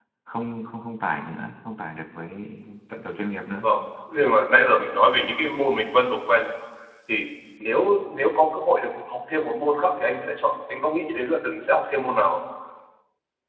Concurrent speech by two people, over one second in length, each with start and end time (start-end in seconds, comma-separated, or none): none